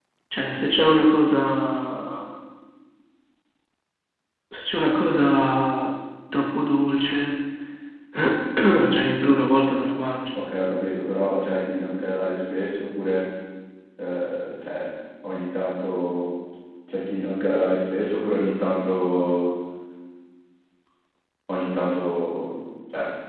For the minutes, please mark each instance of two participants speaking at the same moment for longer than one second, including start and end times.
none

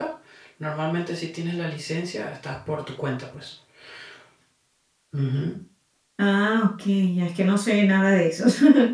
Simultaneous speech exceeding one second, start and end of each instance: none

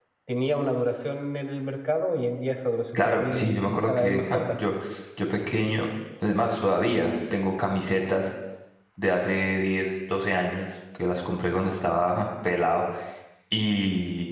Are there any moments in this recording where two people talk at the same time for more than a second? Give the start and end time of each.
3.0-4.4

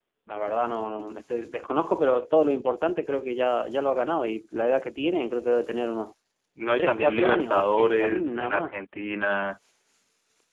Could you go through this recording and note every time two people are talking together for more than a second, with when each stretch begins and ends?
6.8-8.7

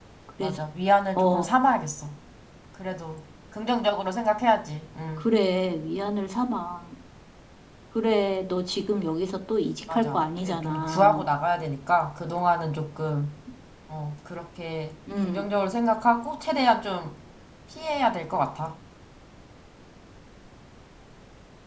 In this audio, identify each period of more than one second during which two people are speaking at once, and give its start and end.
9.9-11.2

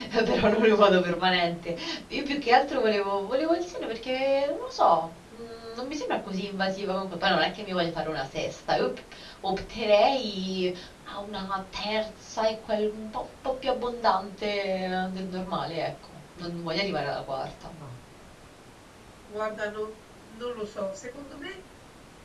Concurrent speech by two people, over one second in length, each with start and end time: none

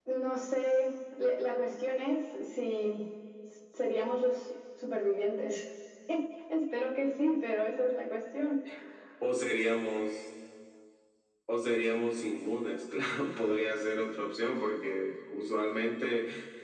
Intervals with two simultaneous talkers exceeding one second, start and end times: none

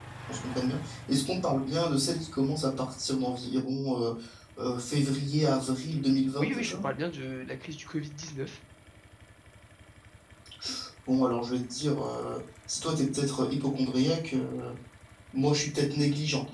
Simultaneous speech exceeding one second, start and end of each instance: none

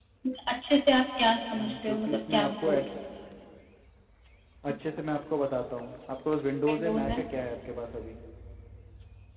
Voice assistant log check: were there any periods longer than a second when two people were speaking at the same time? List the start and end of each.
1.6-3.0

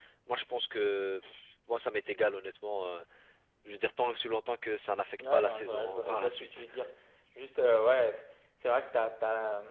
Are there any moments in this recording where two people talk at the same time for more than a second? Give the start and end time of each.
5.2-6.6

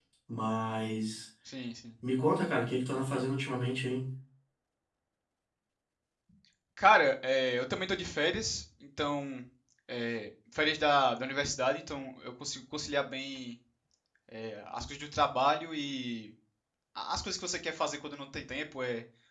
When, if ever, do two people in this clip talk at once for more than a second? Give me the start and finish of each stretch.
none

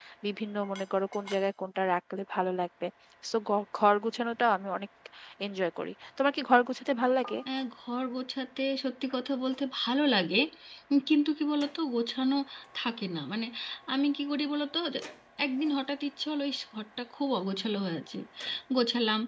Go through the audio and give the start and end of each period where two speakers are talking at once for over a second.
none

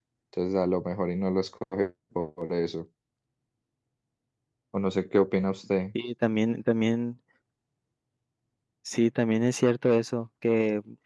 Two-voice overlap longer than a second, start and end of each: none

